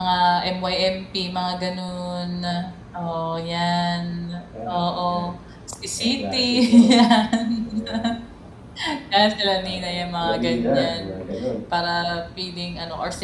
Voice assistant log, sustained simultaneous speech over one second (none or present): present